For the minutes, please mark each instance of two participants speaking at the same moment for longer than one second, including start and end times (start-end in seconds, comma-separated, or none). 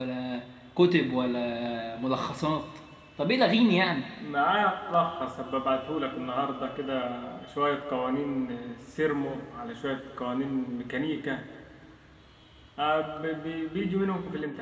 none